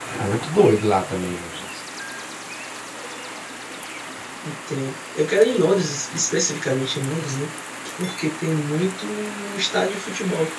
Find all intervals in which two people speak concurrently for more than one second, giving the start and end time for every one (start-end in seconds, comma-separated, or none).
none